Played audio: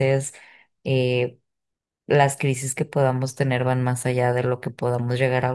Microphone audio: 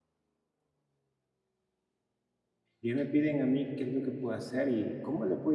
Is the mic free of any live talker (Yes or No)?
No